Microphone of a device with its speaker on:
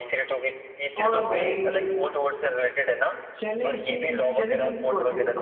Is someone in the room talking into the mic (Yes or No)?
Yes